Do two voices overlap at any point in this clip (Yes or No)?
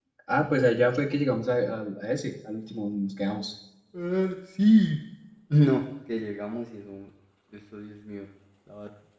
No